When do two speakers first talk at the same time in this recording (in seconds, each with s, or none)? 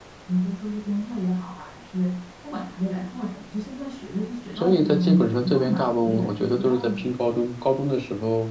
4.6 s